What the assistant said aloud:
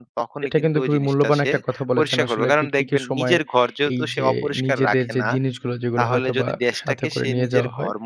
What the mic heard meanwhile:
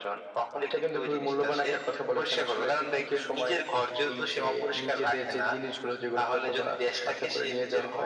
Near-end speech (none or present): none